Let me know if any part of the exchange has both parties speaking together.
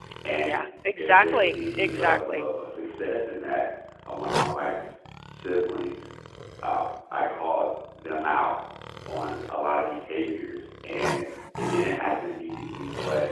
Yes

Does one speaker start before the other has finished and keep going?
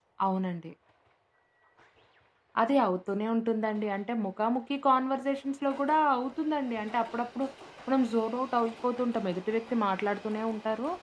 No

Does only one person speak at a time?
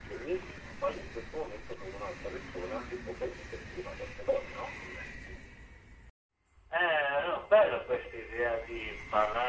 Yes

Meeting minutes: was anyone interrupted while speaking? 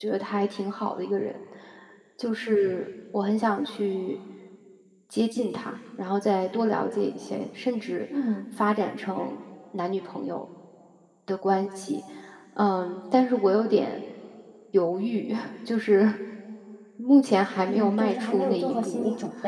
Yes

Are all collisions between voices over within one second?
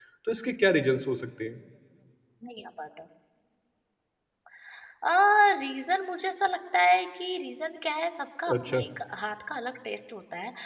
Yes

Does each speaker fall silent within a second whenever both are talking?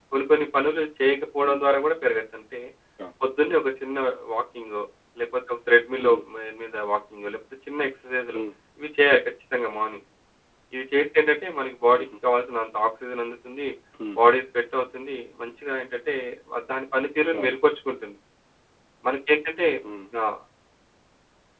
Yes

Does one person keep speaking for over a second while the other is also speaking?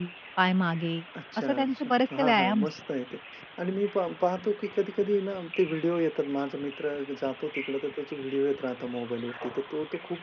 Yes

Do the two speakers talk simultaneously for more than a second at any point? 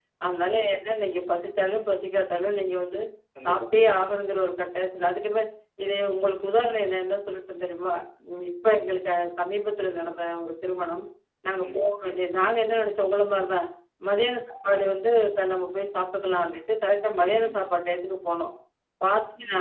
No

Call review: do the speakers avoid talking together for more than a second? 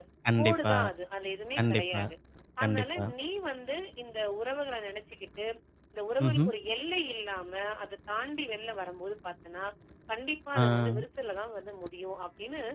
Yes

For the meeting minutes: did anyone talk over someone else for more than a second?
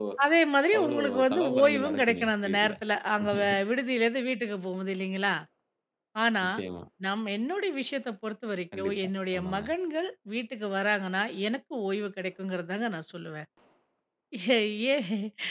Yes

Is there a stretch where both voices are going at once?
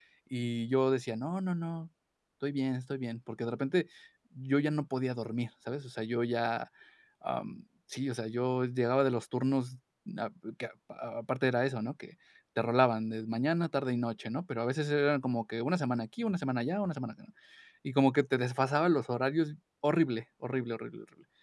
No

